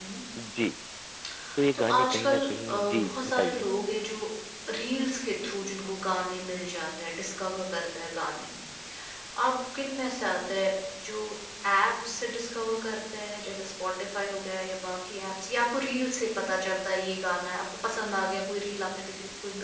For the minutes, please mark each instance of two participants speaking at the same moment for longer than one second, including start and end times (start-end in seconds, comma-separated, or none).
1.8-3.7